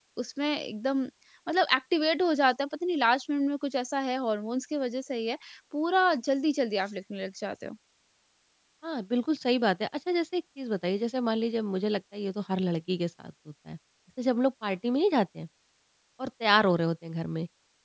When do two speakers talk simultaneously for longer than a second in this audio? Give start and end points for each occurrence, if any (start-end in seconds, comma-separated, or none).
none